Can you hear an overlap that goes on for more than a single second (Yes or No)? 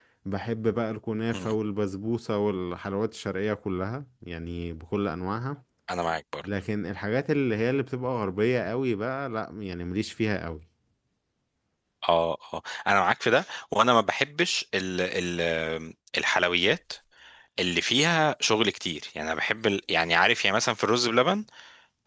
No